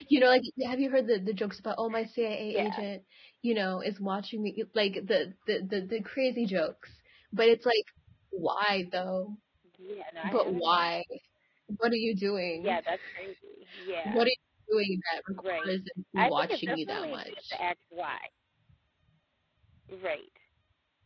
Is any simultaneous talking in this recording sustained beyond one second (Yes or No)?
Yes